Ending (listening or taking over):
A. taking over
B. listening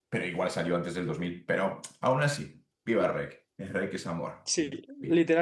A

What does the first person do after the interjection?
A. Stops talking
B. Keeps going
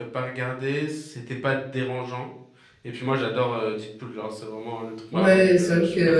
A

